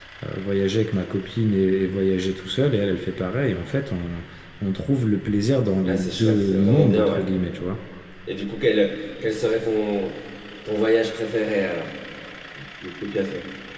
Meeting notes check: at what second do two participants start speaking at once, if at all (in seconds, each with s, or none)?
5.9 s